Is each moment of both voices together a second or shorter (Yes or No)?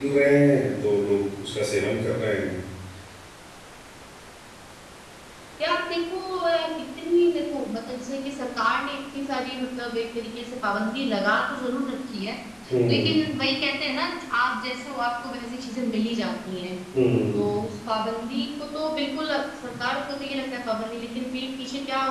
Yes